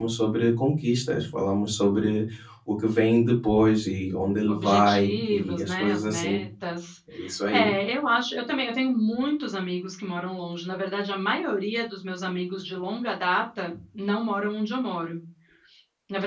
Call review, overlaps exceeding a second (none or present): present